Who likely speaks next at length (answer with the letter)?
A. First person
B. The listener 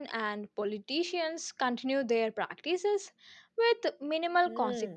B